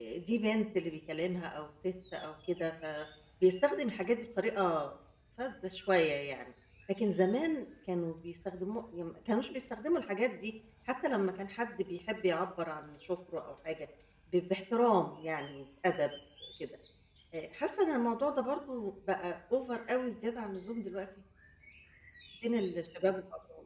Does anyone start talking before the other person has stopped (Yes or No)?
No